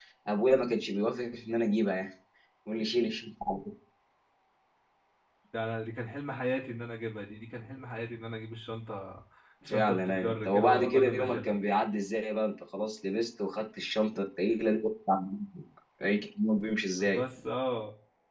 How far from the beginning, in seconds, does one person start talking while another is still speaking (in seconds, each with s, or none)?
9.7 s